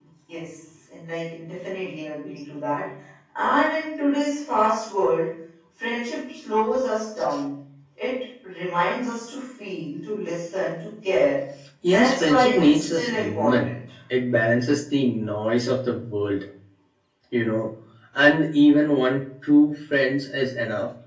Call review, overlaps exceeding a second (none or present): present